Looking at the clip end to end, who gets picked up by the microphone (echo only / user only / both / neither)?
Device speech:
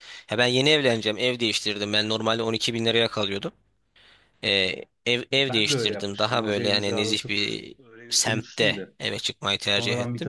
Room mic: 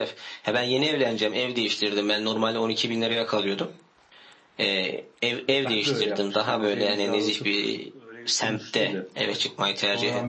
echo only